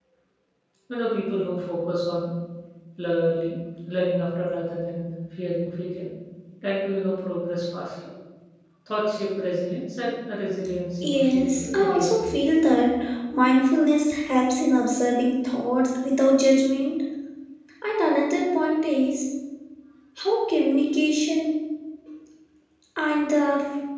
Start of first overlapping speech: 11.0 s

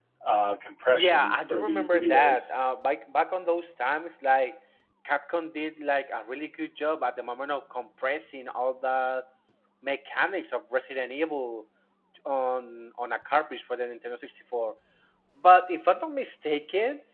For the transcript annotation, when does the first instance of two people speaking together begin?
0.9 s

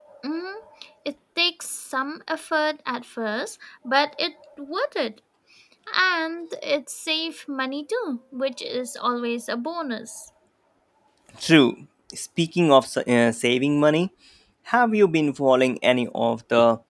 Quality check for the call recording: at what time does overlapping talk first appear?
none

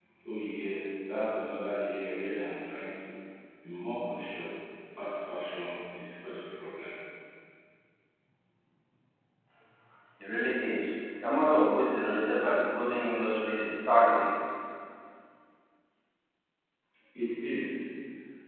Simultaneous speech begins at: none

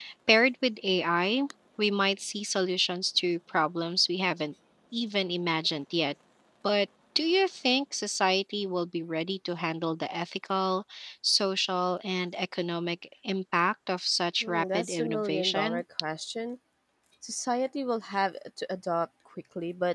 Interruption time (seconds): 14.4 s

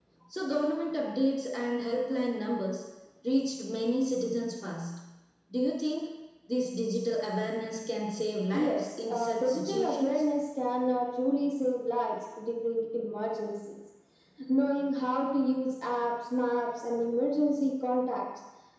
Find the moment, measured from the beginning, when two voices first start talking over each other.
8.5 s

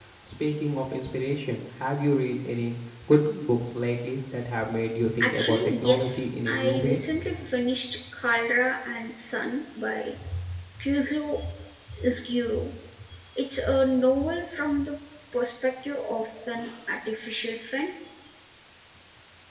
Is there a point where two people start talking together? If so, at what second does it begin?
5.2 s

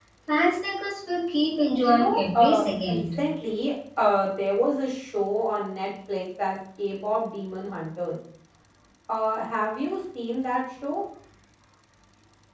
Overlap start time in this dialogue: 1.8 s

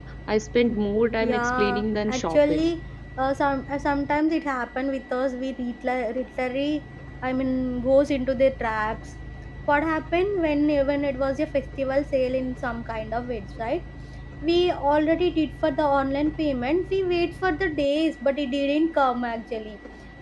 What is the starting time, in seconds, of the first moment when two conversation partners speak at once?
1.2 s

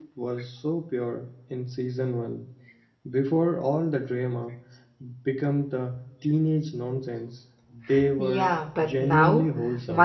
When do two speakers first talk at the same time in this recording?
8.2 s

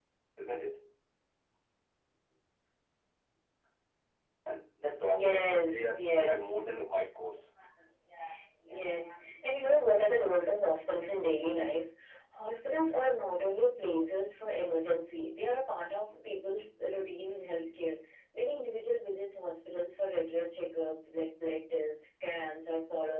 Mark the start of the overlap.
5.1 s

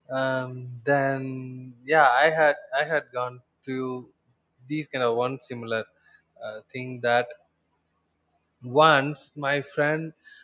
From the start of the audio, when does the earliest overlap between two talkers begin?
none

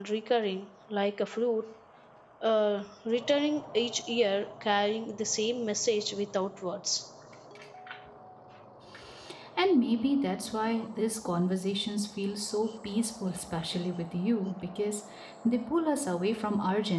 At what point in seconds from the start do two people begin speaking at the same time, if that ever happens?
none

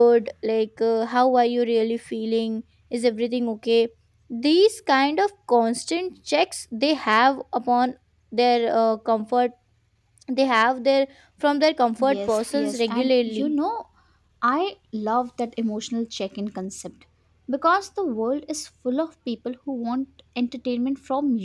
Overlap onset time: 12.0 s

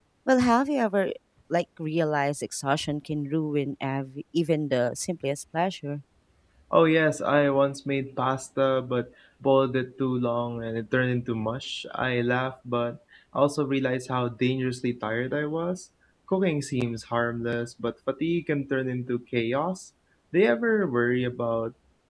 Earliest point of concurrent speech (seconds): none

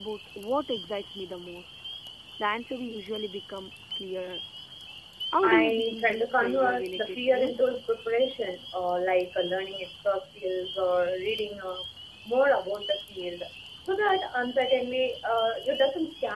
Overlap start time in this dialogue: 5.4 s

